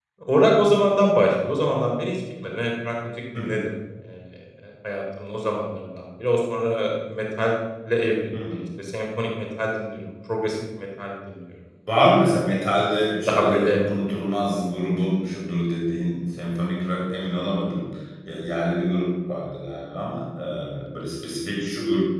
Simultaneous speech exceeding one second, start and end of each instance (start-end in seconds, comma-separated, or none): none